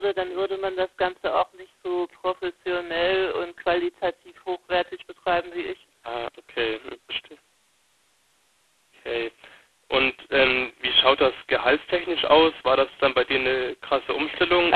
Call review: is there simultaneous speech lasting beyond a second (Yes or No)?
No